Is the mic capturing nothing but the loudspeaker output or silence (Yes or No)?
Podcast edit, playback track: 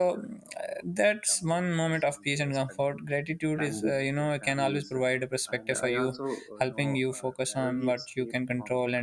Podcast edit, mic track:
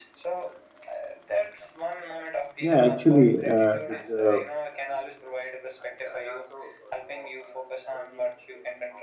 No